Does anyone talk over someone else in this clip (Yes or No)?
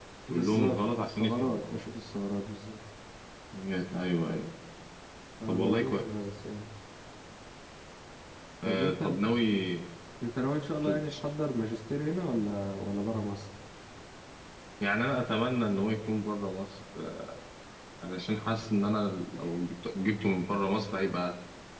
Yes